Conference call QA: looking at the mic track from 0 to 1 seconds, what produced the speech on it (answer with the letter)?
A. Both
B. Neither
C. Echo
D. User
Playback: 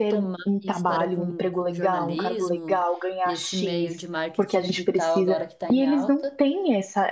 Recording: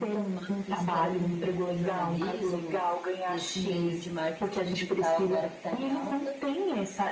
C